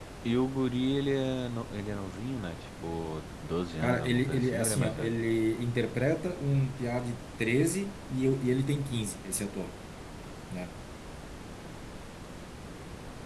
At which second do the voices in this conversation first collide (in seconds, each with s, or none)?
3.8 s